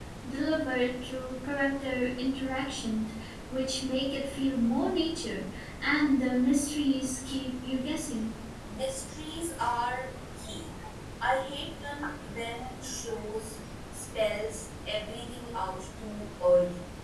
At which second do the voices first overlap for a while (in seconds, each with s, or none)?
none